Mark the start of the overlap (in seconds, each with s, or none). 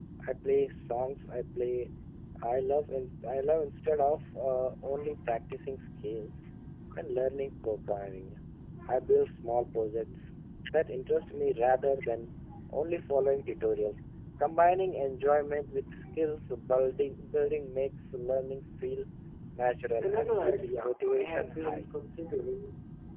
20.0 s